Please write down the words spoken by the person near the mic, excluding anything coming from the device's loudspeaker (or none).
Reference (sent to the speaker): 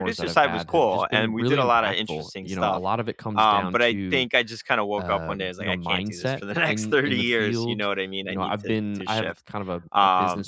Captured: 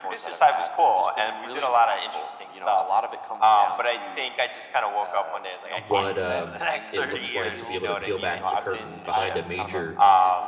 what, um, it looks like to be able to peel back the curtain behind a major